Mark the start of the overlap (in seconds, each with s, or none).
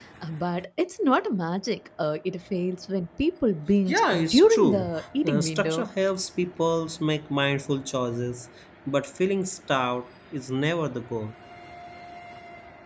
3.9 s